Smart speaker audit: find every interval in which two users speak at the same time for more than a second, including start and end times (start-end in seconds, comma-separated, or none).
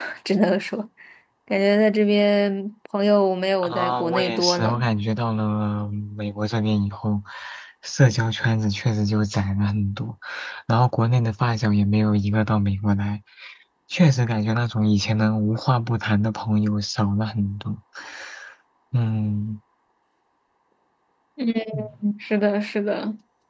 3.6-4.9